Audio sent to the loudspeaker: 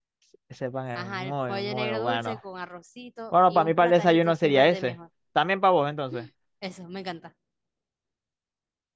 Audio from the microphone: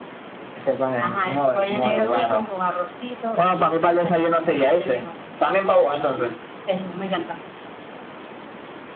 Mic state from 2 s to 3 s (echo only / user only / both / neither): echo only